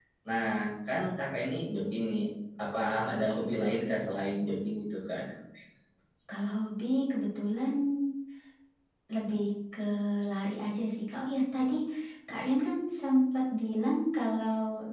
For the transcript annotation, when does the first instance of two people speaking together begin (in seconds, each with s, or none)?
none